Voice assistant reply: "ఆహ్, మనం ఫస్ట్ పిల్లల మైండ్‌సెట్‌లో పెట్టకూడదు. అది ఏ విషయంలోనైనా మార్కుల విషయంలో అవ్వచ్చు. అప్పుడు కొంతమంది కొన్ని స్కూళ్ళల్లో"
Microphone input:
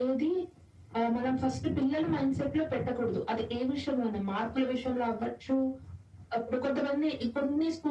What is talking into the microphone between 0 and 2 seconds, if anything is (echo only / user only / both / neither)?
echo only